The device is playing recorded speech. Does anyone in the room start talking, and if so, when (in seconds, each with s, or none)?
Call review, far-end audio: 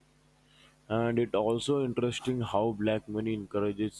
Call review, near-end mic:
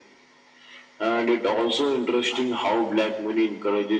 none